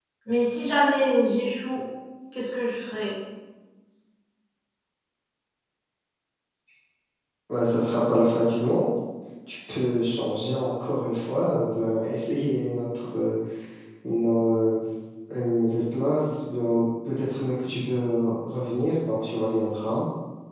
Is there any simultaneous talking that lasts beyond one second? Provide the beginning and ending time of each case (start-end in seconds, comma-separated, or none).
none